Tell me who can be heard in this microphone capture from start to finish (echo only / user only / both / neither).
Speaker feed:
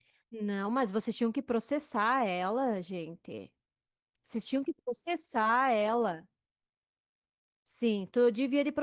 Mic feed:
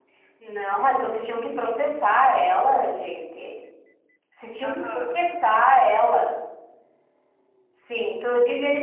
both